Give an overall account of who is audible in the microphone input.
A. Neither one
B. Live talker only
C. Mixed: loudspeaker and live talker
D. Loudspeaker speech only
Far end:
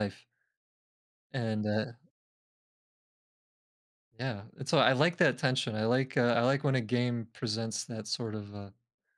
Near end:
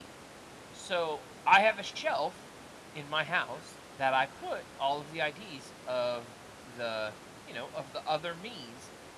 B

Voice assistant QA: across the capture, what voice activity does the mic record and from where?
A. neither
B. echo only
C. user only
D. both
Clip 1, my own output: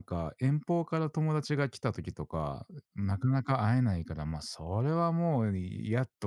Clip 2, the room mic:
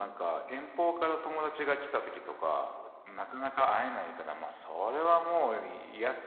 B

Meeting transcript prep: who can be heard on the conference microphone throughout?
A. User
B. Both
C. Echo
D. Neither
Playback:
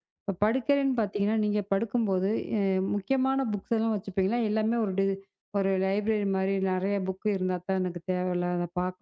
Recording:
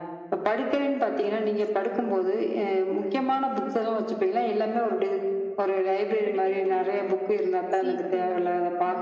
B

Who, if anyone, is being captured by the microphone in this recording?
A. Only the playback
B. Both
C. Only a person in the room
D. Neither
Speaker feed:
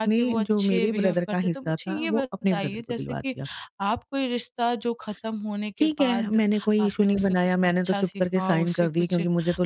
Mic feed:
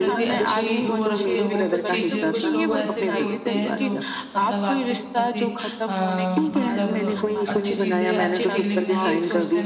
B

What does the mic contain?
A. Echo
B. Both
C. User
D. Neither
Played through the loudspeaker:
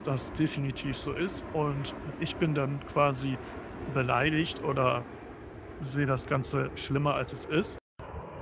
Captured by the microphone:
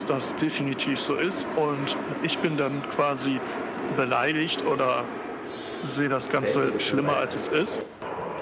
B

